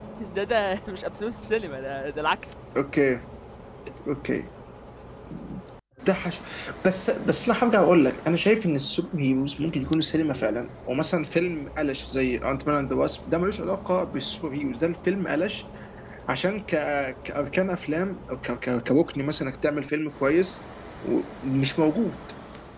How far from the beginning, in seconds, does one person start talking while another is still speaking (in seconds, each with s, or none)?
none